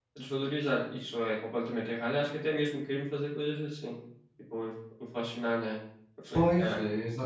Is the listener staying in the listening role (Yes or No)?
No